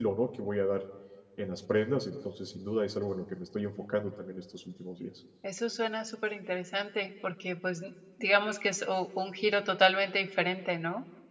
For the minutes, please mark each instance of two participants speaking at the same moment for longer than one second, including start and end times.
none

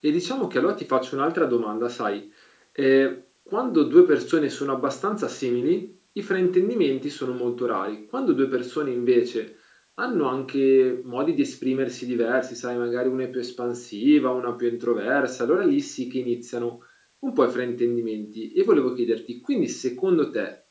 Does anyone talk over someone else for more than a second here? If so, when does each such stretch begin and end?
none

